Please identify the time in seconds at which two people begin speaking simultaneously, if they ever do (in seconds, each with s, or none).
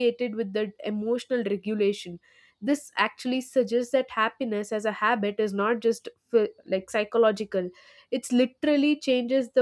none